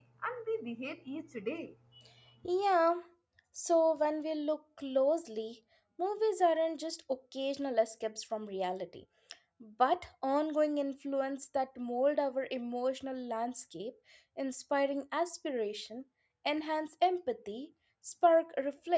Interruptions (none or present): none